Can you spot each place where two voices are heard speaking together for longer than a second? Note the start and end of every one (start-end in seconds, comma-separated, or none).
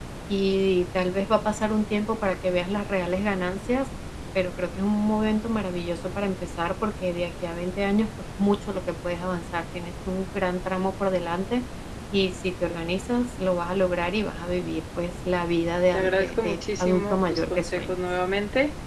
15.9-17.9